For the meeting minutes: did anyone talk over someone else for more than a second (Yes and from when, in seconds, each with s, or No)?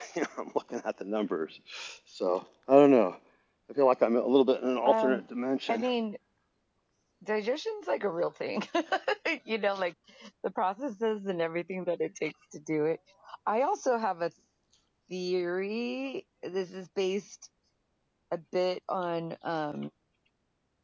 No